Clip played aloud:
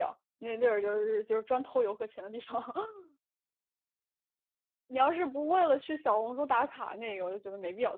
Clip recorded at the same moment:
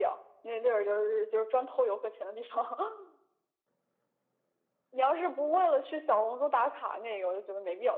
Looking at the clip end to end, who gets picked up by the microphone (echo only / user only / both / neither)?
echo only